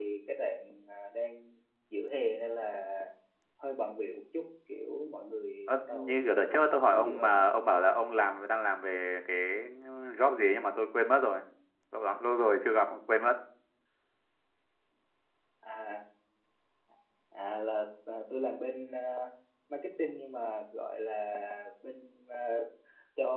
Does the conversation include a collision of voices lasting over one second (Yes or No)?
Yes